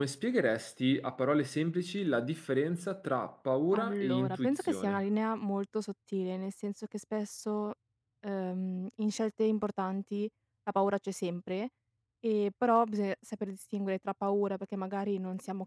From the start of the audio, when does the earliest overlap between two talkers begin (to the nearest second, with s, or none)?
4 s